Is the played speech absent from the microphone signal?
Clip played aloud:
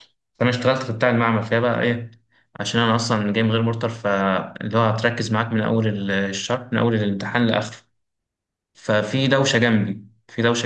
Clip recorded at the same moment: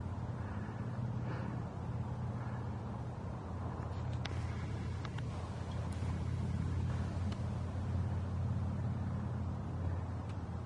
Yes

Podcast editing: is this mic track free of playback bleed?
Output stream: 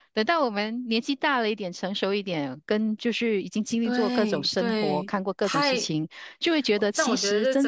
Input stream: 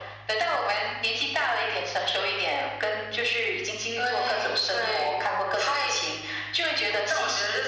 No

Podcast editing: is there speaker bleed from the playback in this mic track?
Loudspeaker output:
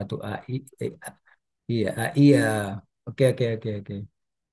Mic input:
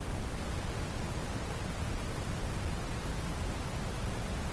No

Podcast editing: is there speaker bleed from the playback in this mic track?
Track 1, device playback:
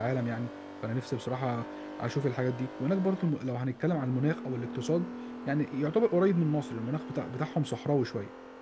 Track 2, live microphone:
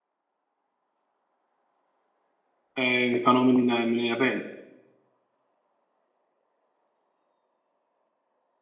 No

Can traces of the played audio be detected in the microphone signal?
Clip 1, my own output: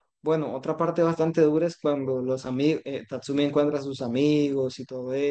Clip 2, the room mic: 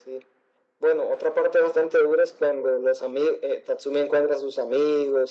Yes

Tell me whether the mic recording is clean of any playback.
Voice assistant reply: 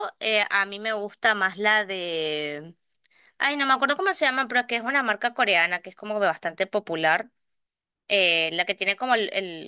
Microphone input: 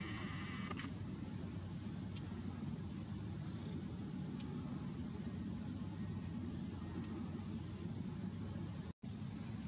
Yes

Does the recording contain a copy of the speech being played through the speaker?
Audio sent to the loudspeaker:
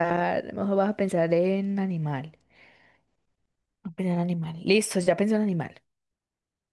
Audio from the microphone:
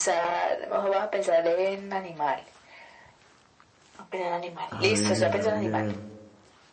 Yes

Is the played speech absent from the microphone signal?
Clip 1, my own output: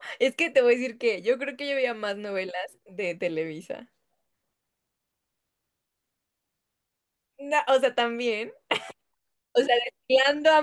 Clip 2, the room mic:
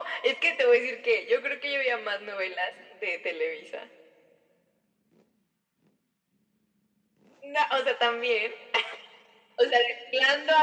No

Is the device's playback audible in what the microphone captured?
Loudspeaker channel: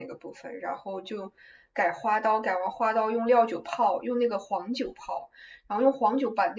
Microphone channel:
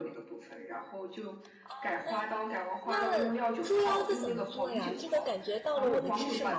Yes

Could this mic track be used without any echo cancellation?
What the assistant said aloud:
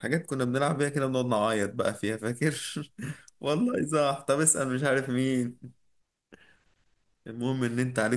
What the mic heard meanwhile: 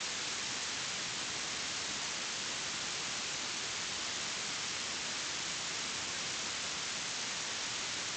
Yes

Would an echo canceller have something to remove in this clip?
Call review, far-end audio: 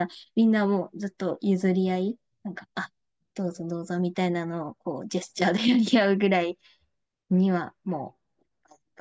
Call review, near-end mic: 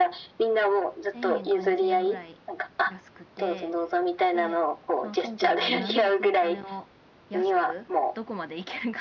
Yes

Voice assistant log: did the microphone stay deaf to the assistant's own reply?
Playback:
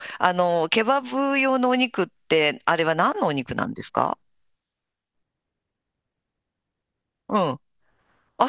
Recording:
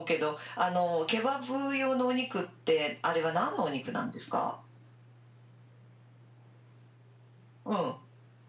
No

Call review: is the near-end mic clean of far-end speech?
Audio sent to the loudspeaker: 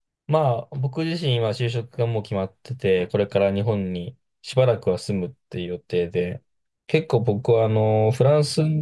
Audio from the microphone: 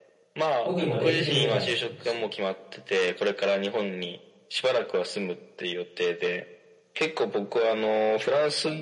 No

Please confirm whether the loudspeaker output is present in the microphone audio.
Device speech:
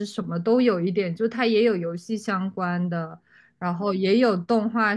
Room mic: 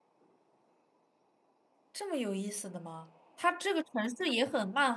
No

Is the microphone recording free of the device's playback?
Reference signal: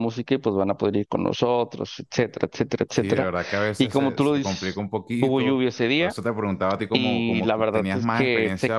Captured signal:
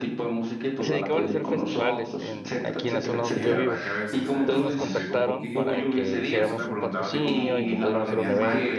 No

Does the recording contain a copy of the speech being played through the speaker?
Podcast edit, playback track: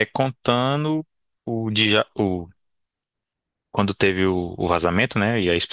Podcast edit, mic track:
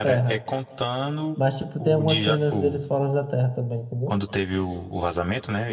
Yes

